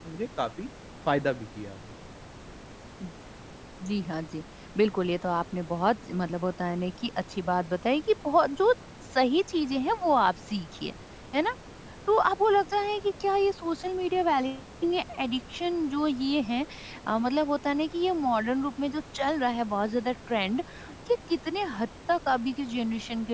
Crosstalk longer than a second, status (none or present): none